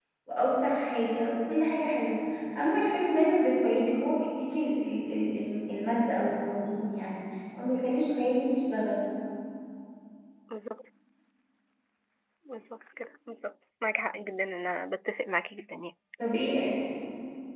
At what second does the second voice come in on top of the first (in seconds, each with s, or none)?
none